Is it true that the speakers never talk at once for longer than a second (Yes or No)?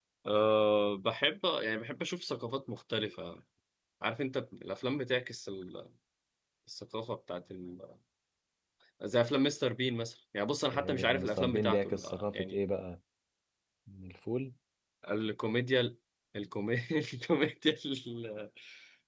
No